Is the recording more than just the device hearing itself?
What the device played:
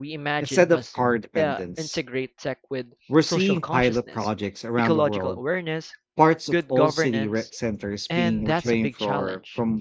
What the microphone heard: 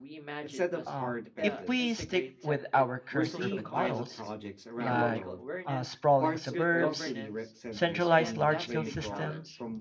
Yes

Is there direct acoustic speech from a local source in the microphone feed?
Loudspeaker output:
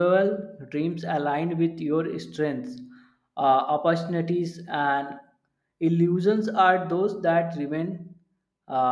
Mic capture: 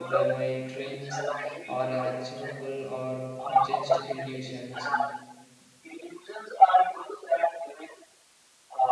Yes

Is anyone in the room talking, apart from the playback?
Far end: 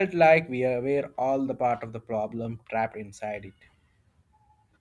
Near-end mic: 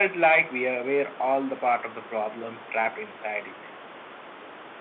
No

